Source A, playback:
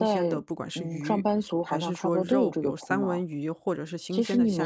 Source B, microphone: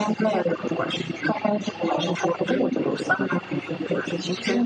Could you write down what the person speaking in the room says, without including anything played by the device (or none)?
none